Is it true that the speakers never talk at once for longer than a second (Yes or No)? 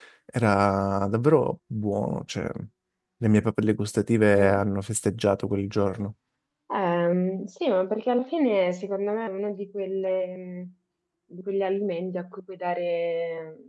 Yes